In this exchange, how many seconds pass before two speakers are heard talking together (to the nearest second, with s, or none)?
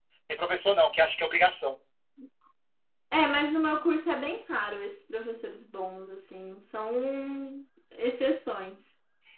none